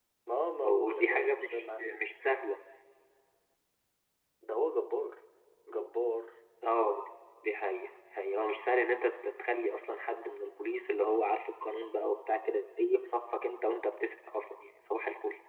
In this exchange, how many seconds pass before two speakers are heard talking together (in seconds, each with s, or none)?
0.6 s